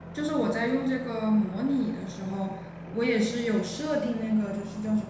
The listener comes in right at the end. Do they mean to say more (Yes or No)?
No